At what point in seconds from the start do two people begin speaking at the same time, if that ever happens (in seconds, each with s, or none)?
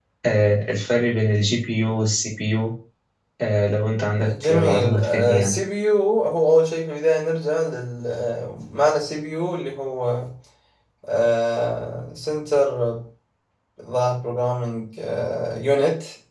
4.2 s